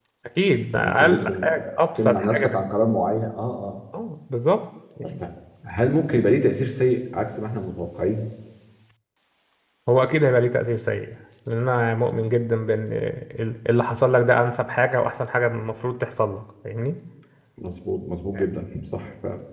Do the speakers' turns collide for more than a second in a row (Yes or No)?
Yes